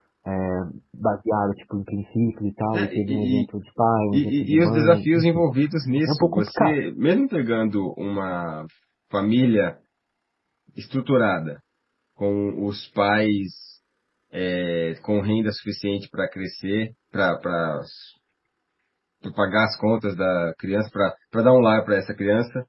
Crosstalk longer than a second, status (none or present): present